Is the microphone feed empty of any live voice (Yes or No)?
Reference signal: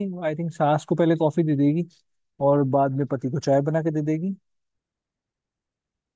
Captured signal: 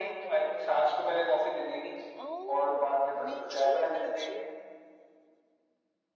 No